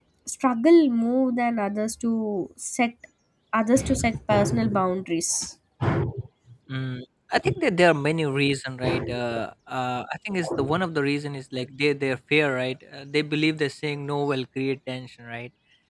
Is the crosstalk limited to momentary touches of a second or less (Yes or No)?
Yes